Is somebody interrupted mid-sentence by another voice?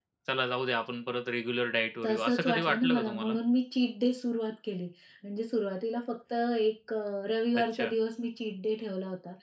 Yes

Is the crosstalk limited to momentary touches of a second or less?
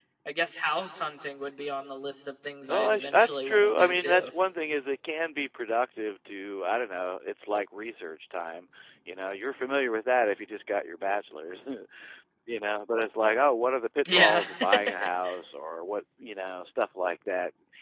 No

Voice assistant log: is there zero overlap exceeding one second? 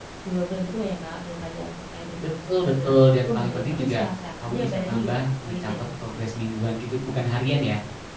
No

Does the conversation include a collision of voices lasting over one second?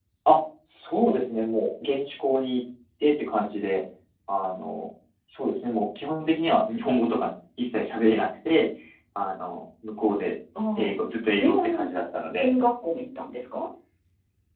No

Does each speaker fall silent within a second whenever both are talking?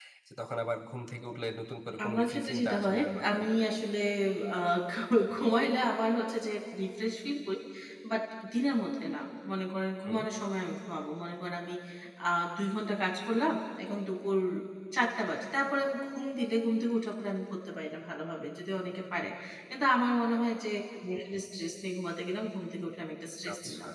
No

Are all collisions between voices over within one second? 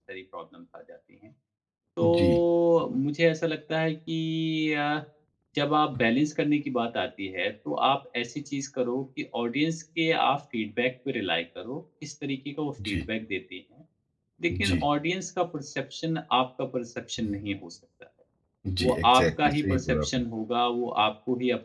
No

